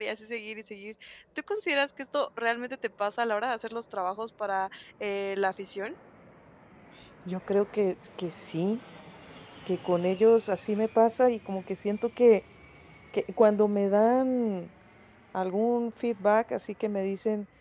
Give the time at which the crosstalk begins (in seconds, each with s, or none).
none